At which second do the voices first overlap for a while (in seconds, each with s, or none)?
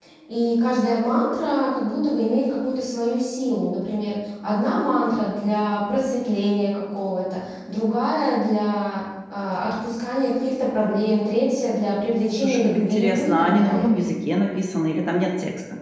12.3 s